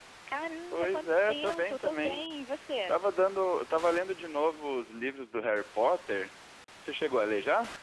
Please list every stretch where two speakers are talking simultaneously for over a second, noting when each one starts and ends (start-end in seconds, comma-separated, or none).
0.7-2.2